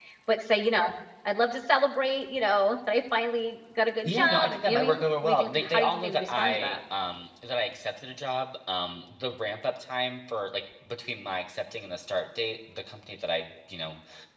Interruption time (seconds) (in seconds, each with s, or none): 4.0 s